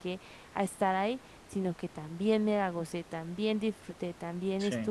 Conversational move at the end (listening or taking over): listening